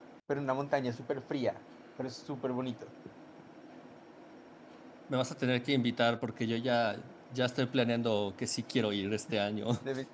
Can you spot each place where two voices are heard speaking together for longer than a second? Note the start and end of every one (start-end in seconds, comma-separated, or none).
none